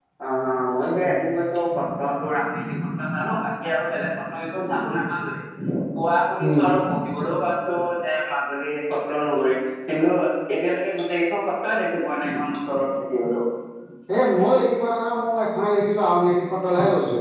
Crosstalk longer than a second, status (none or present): none